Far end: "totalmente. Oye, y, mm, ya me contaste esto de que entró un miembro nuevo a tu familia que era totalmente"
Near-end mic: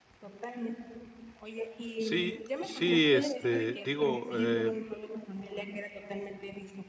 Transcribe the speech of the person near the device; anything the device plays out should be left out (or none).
Sí, sí, este, digo, eh